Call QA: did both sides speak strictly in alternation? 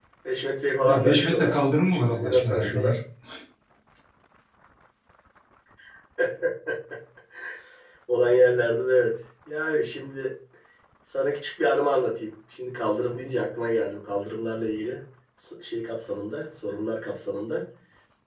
No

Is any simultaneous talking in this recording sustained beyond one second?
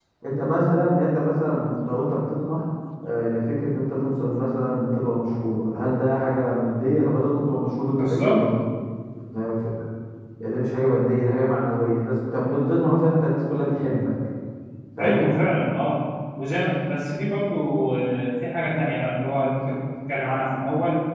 No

